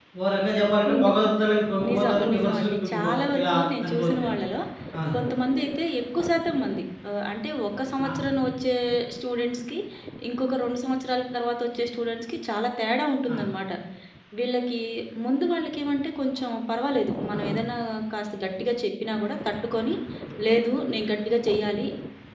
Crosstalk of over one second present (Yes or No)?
Yes